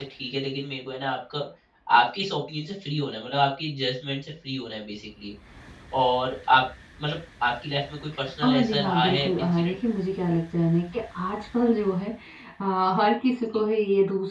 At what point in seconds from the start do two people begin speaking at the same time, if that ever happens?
8.4 s

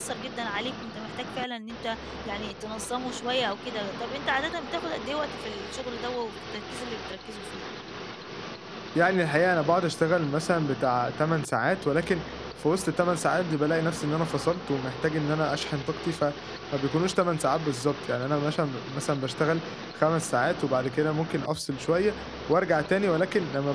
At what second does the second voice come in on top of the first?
none

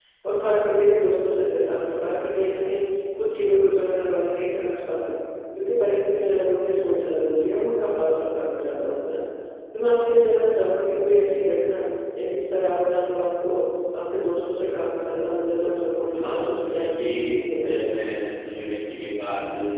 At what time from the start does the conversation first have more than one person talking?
16.1 s

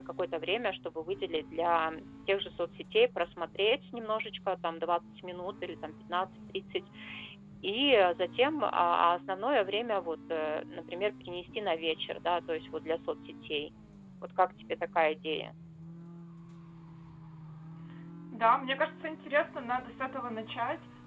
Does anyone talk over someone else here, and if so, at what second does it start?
none

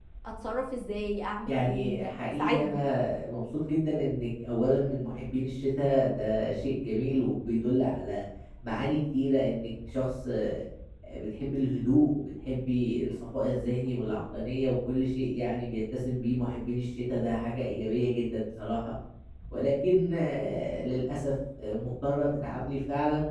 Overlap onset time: 1.4 s

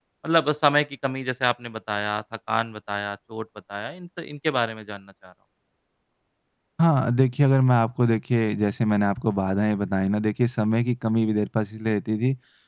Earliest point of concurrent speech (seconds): none

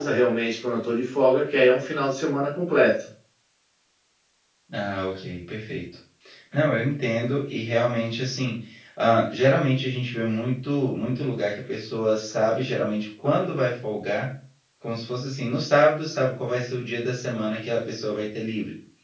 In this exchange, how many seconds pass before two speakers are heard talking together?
none

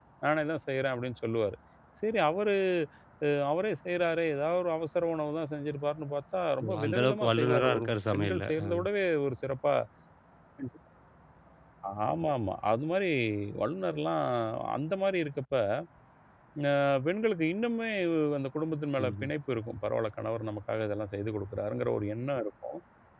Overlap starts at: 6.6 s

